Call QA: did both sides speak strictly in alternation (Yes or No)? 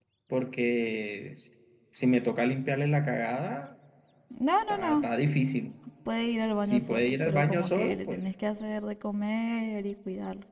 No